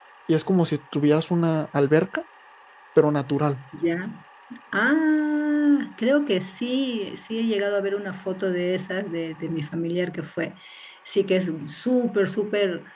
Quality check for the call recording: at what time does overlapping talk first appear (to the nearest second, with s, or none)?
none